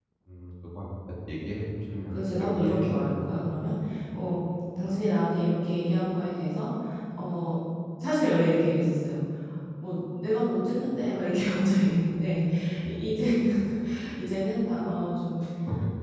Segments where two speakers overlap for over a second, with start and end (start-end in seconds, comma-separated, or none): 2.1-3.9